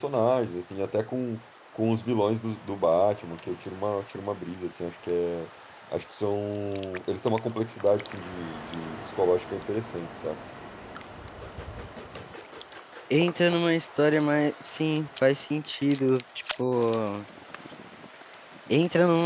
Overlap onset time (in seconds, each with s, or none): none